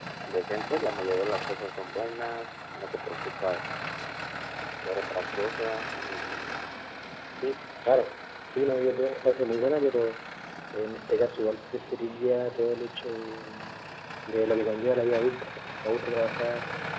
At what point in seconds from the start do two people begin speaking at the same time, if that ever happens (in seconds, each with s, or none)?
none